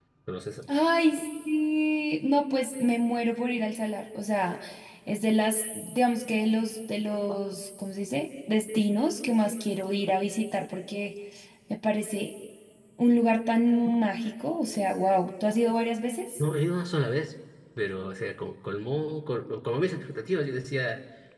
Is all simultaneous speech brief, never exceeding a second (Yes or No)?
Yes